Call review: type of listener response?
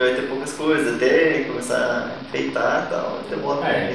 taking over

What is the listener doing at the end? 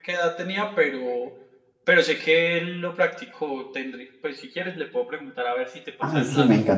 taking over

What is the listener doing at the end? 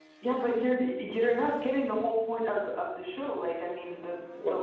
listening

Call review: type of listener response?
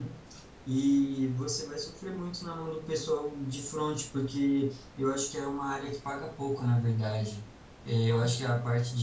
listening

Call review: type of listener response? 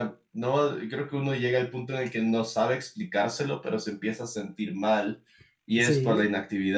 listening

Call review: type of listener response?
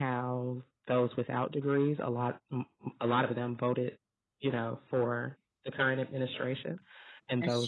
listening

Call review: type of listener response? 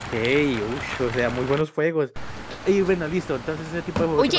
taking over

